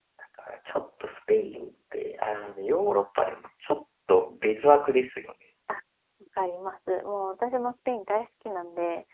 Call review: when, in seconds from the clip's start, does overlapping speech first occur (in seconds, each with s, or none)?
none